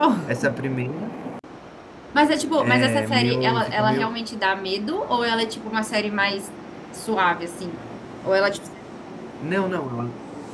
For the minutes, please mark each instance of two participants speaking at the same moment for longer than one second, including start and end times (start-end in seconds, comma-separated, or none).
2.6-4.1